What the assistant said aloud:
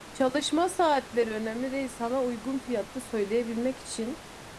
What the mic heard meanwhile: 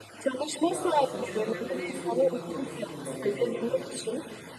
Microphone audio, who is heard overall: both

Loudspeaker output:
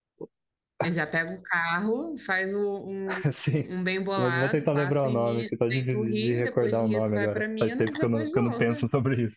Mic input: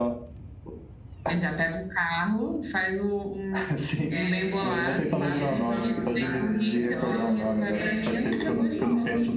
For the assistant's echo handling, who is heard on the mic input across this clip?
both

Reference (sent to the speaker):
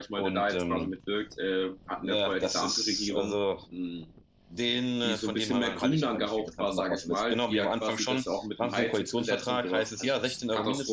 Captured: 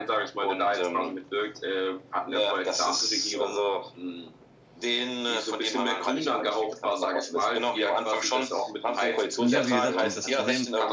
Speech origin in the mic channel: both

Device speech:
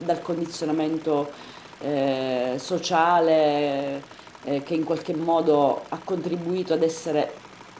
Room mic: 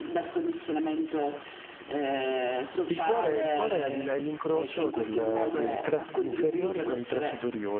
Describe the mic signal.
both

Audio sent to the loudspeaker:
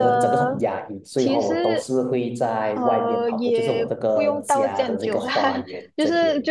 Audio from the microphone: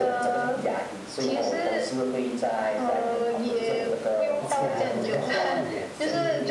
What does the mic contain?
both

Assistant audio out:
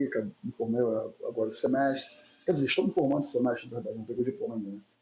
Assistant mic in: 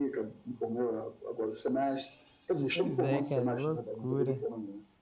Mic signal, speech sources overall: both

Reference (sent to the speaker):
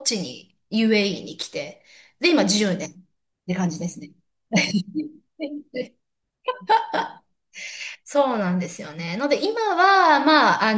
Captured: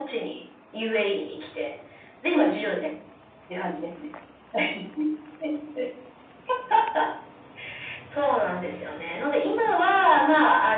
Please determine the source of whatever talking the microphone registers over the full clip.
echo only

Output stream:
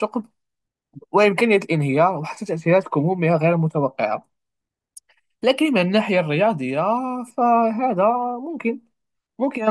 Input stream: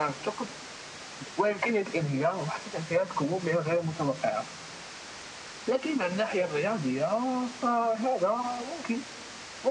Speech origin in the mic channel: echo only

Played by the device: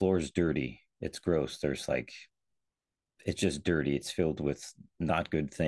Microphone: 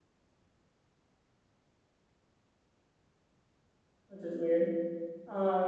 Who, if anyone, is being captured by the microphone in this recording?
user only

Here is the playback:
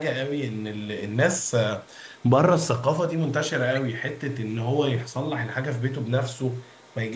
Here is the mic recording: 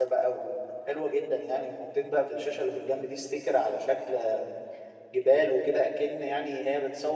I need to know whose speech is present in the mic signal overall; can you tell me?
user only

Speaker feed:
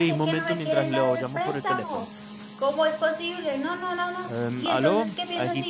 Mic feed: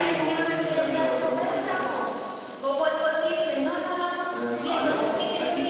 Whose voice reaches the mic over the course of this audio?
echo only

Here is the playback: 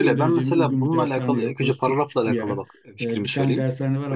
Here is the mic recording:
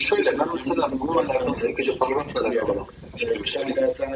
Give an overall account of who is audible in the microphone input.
echo only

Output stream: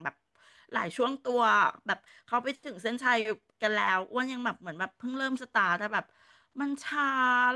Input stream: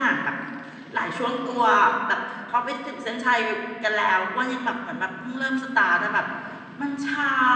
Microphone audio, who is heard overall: echo only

